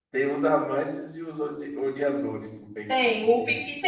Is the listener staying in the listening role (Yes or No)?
No